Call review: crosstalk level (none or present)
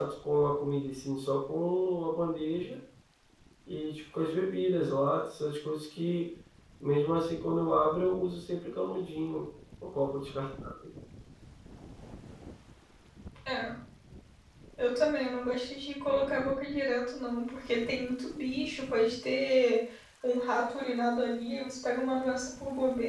none